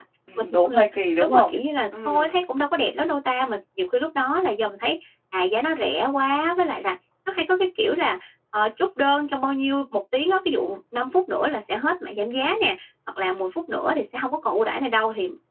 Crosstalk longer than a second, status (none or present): none